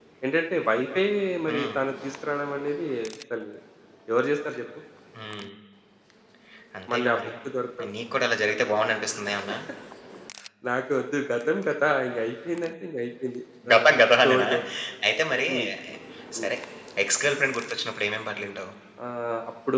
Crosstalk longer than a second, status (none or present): none